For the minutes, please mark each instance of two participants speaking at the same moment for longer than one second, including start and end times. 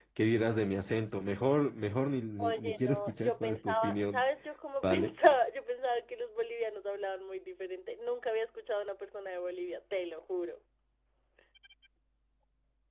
2.4-4.2

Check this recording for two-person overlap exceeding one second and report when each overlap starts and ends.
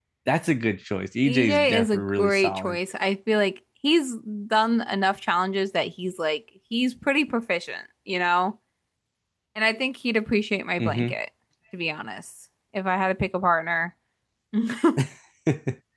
1.2-2.8

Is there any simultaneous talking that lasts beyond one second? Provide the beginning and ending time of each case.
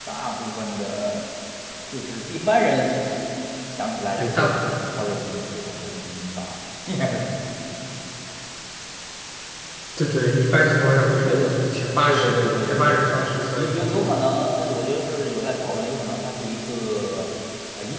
12.1-14.2

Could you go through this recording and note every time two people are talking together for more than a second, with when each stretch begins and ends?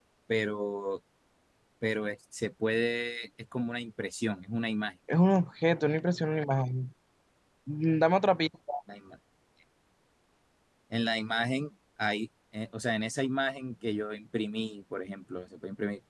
none

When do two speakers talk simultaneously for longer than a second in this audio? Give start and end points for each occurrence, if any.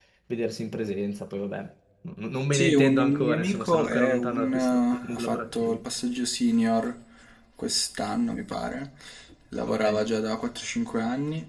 2.5-5.7

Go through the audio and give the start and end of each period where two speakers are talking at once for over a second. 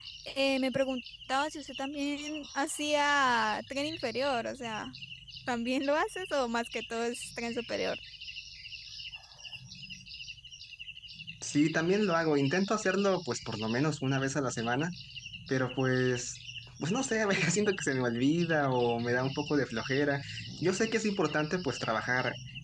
none

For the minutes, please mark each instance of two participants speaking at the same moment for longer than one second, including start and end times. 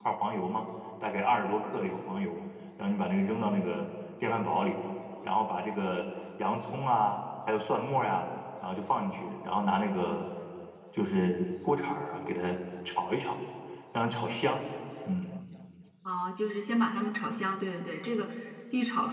none

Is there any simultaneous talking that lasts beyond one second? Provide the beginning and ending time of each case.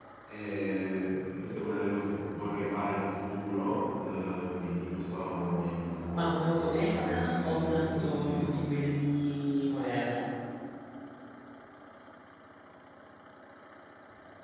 6.2-8.7

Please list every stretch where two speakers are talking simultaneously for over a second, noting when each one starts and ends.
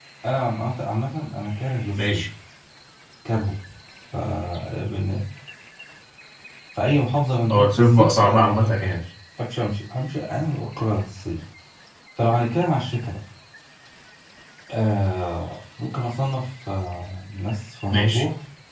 7.5-9.0

